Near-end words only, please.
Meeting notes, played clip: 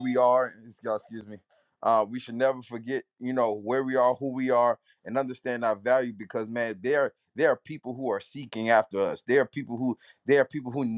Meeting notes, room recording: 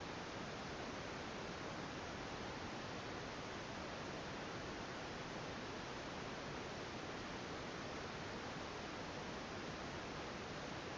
none

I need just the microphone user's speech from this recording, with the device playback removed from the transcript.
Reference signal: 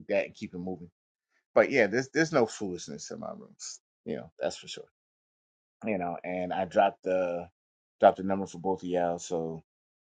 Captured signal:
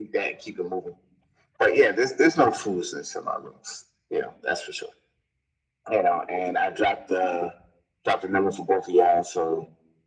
none

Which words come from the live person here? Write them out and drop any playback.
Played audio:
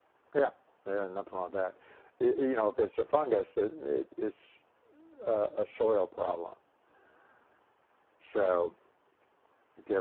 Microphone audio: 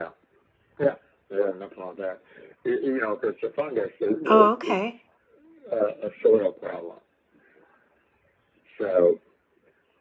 Oh, okay.

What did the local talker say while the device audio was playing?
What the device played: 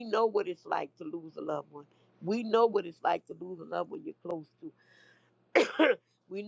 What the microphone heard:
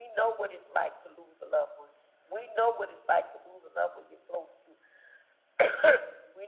none

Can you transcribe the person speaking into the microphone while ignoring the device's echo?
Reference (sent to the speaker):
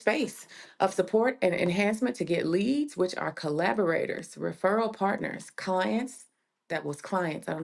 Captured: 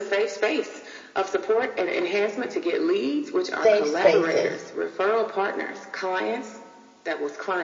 safe spaces.

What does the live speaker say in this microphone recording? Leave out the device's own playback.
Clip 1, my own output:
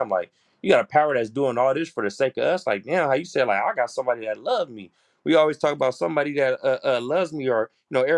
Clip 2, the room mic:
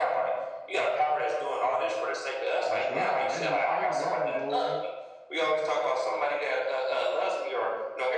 that's right. I didn't even think of that one. Go ahead.

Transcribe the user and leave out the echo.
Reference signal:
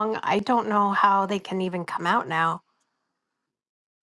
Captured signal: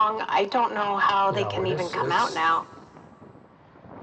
you know, and it's it's

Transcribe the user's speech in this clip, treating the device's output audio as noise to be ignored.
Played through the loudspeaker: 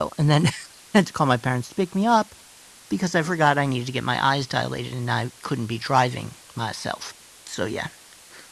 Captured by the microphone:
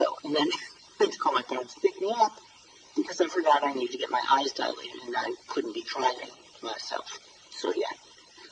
none

